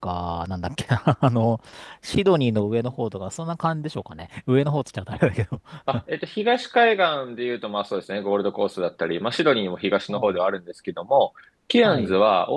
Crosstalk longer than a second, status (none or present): none